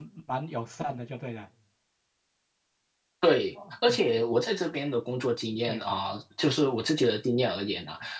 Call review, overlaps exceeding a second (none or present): none